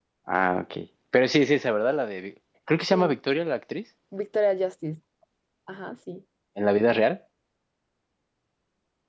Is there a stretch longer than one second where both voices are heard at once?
No

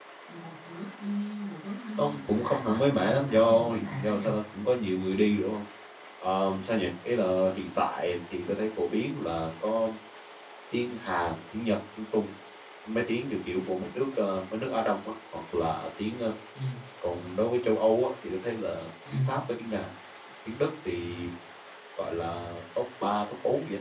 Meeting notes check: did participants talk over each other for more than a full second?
Yes, from 2.0 s

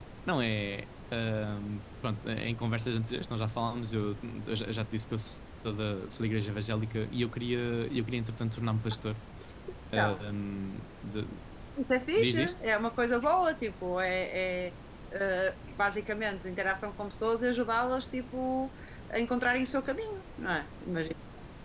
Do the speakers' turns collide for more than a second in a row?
No

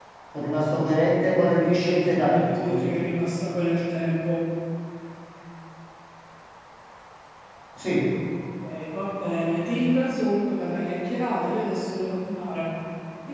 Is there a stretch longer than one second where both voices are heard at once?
Yes, from 1.7 s

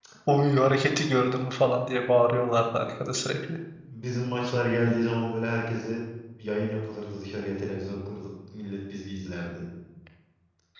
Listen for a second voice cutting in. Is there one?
No

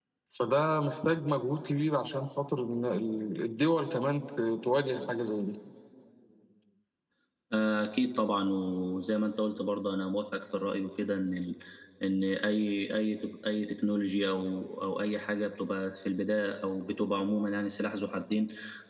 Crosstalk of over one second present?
No

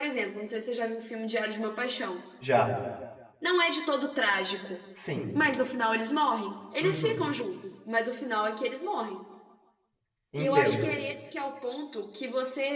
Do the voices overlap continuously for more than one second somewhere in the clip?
No

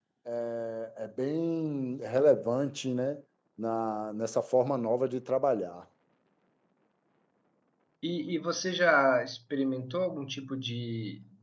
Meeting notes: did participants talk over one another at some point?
No

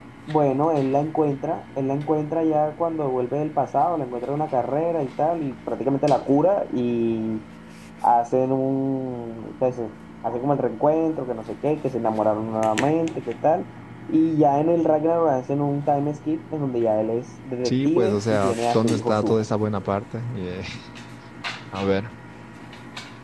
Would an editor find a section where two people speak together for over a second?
Yes, from 17.6 s

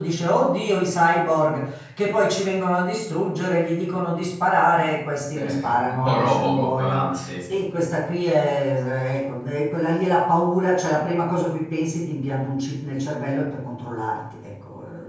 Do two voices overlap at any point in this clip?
Yes, from 5.3 s

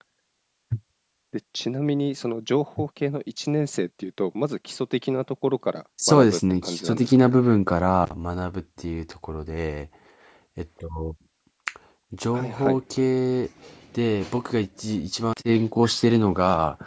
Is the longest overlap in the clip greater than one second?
Yes, from 6.1 s

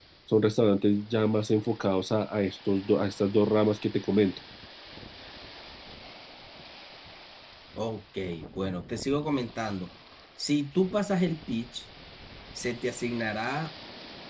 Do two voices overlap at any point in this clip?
No

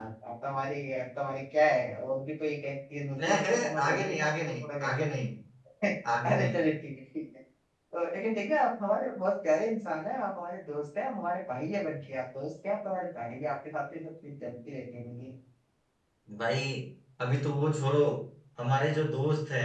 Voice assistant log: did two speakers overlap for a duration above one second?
Yes, from 3.3 s

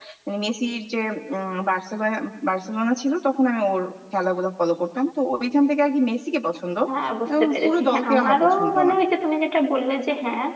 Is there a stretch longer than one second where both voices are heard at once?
Yes, from 7.4 s

